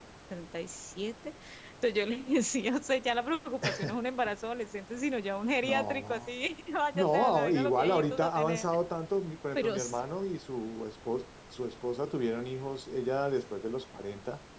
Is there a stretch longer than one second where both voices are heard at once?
Yes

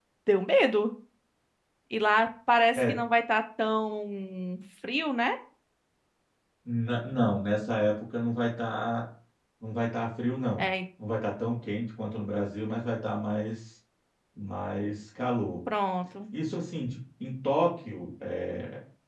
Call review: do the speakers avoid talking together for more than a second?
Yes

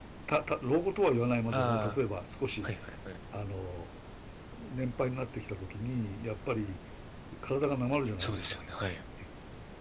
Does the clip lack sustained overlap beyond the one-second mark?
Yes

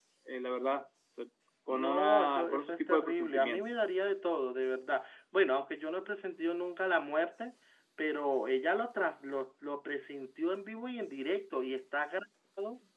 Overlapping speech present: Yes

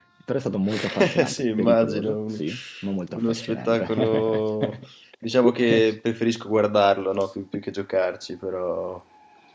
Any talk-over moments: Yes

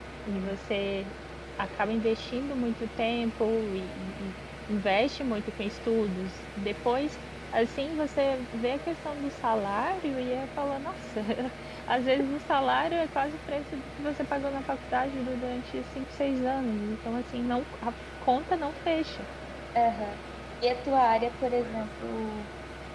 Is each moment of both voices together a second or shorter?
Yes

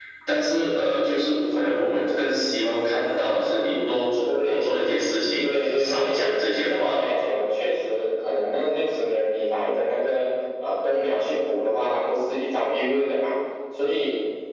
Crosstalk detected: Yes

